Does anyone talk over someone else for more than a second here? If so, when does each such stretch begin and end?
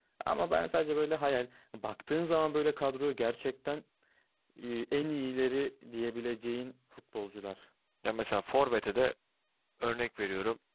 none

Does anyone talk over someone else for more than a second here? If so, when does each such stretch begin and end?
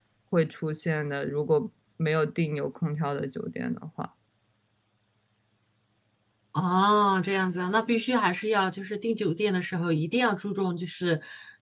none

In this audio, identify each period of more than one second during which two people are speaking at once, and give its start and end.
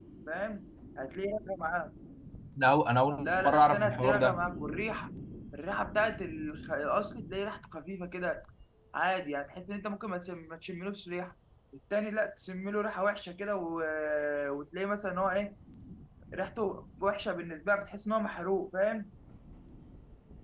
3.2-4.4

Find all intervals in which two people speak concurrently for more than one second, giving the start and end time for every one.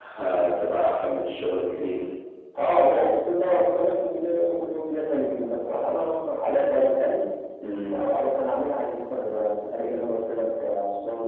none

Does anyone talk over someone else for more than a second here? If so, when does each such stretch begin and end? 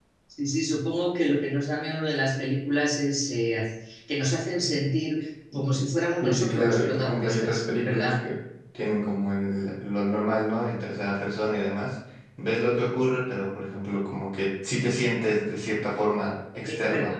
6.2-8.2

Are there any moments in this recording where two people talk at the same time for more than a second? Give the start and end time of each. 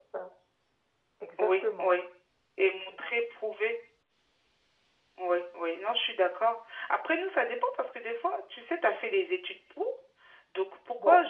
none

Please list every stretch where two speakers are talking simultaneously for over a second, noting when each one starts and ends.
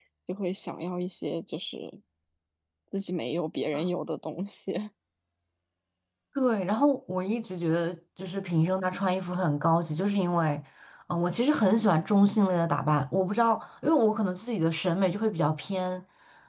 none

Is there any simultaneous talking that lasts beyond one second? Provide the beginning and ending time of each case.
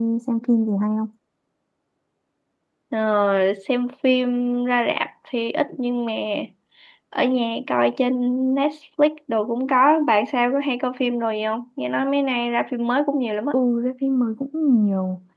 none

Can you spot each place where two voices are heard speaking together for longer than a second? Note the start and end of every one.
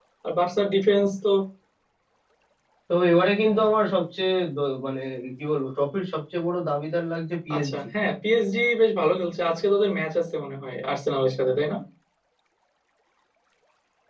none

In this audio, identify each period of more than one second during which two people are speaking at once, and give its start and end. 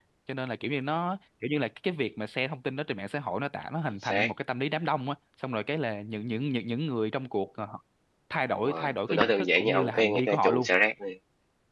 8.6-10.7

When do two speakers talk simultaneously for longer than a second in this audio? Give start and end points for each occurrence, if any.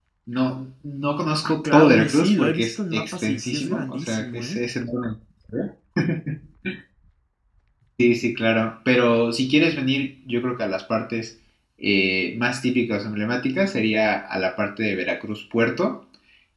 1.4-4.6

